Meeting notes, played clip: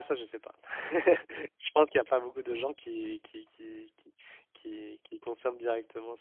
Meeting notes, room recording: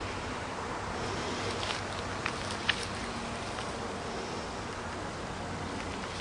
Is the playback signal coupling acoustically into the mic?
No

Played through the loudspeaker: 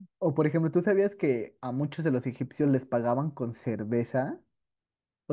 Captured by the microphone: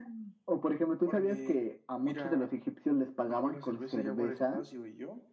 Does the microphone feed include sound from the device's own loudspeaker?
Yes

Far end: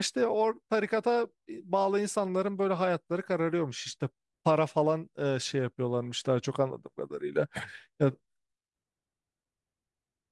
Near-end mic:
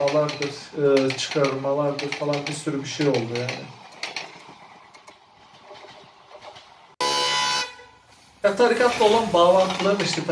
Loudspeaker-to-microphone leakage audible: No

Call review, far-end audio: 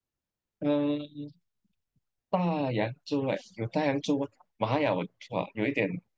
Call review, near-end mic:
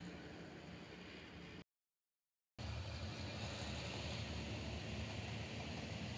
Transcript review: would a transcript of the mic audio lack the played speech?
Yes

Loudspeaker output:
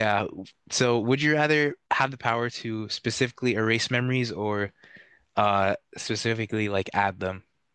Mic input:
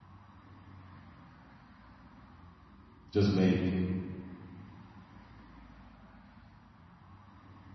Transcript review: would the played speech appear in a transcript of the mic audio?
No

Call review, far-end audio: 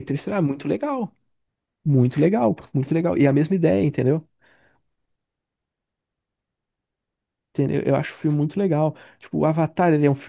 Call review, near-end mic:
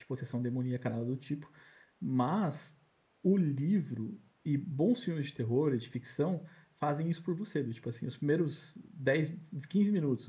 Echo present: No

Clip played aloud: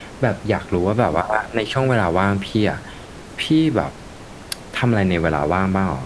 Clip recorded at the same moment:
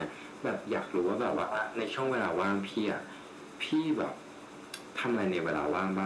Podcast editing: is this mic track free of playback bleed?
No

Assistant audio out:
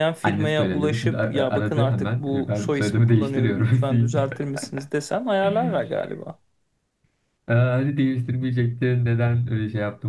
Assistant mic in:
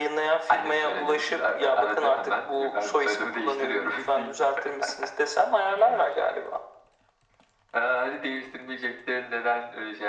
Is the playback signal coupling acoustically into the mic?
Yes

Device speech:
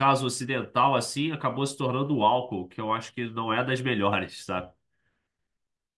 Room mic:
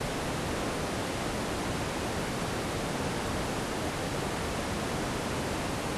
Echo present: No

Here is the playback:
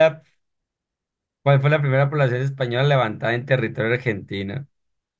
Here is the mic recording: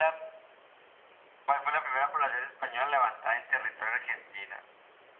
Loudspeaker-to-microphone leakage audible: Yes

